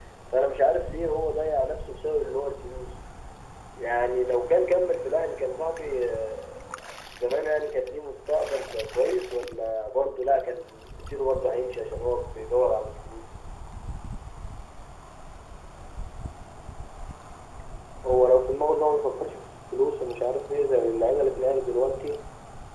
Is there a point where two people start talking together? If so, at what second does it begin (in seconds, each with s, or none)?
none